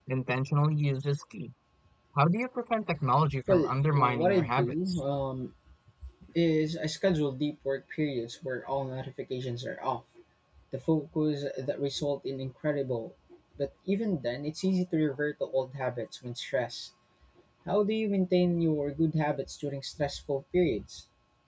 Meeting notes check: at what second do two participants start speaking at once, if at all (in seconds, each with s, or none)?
3.3 s